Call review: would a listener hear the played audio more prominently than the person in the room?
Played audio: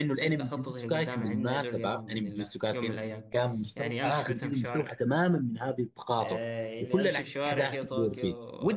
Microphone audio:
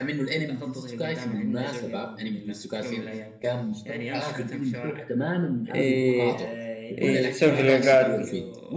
No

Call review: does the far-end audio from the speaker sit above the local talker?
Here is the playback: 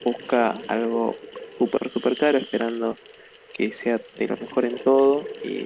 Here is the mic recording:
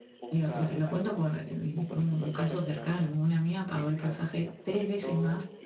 No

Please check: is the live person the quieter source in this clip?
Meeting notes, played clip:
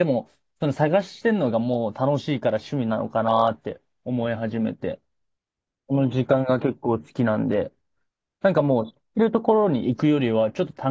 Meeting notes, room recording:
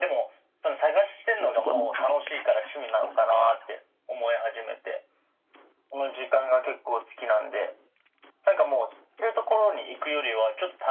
Yes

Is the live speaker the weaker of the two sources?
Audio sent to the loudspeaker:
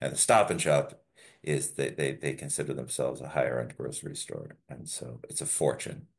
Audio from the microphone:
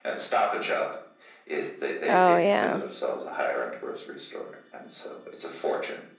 No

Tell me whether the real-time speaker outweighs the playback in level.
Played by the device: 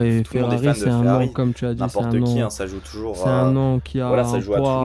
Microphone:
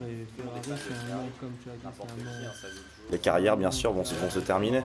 Yes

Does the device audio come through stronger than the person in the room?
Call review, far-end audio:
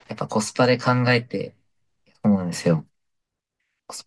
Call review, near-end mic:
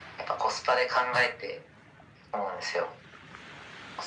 Yes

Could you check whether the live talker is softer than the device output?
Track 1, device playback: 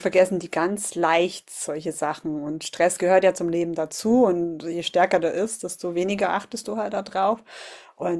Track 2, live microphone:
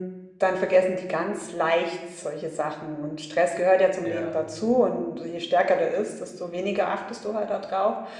Yes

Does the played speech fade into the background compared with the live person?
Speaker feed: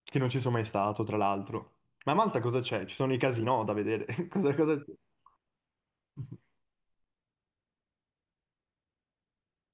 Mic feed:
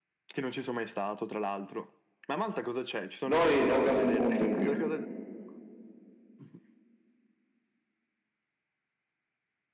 Yes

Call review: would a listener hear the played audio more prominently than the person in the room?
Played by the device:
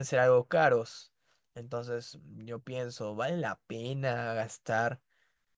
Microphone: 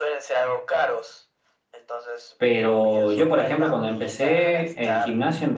No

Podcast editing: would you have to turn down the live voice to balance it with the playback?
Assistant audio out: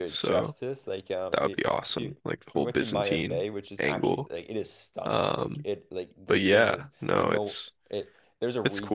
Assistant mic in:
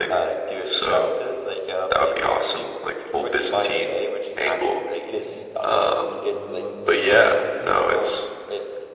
No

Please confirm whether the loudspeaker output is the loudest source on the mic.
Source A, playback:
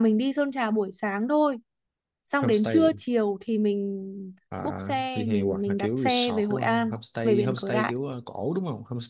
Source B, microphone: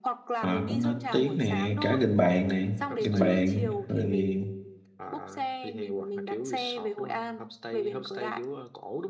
No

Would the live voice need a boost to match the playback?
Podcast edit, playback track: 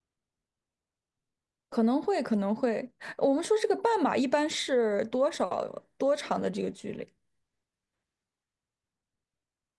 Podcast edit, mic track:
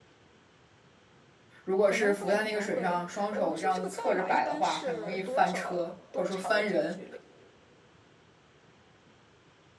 No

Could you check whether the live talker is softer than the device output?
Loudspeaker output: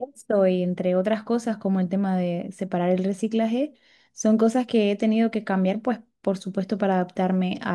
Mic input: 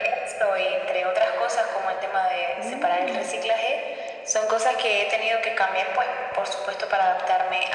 Yes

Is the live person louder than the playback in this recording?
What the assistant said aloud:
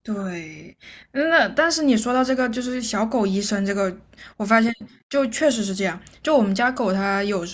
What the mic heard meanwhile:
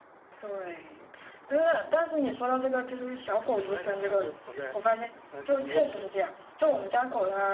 No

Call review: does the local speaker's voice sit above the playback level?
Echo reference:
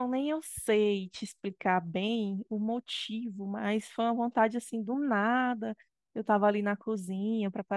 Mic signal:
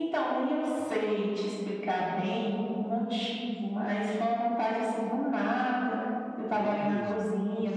No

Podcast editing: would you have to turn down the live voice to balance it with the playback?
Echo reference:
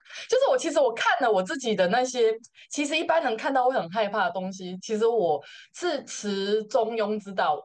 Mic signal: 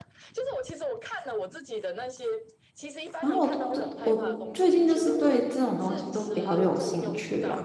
Yes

